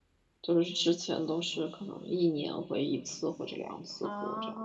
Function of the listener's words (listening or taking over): taking over